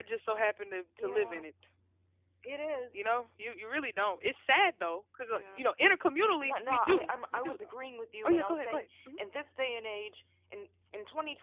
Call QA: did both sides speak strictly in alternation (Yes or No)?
No